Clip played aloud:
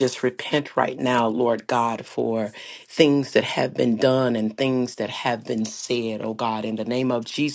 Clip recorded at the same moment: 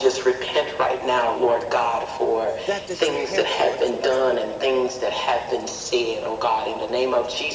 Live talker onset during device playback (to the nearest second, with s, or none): 3 s